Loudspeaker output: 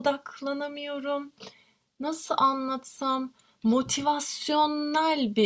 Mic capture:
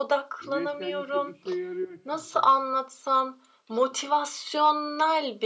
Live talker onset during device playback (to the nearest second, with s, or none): 0 s